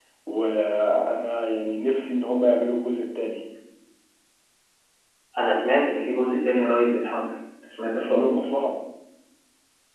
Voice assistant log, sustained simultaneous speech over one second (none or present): none